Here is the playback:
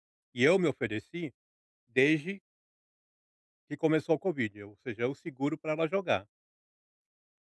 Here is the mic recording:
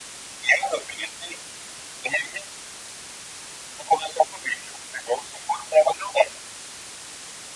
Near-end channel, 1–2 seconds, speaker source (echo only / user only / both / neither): echo only